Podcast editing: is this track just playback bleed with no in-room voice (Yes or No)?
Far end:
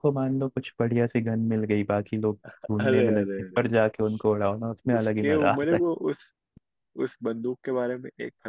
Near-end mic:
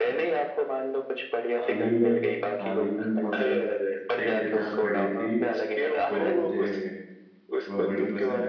No